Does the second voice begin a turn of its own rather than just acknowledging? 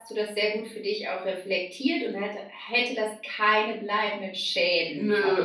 Yes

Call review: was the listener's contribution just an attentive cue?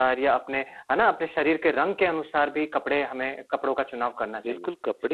No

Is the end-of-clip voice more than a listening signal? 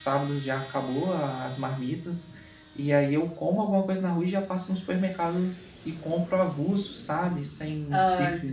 No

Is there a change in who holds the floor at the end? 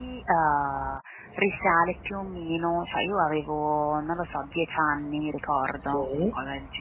No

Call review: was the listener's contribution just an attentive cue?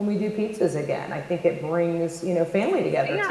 No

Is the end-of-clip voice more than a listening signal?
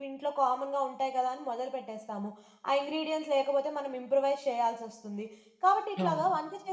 No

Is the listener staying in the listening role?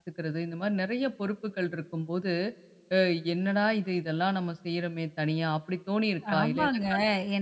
No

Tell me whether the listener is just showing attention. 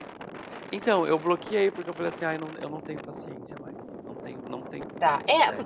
No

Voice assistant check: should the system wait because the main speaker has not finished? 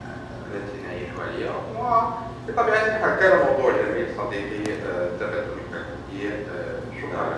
No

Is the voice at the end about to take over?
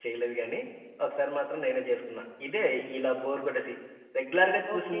No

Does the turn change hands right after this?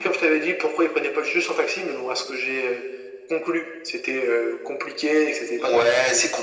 Yes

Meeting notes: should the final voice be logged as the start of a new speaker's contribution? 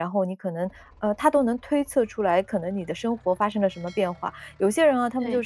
No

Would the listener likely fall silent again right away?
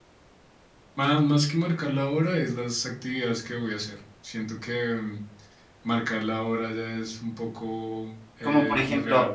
No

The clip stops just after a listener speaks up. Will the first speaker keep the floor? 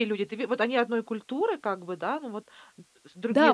No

